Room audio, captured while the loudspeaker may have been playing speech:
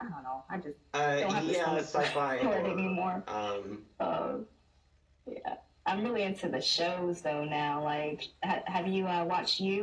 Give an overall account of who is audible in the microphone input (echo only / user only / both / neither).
both